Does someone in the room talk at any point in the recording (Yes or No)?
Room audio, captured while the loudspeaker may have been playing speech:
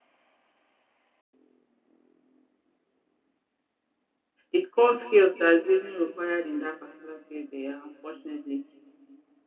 Yes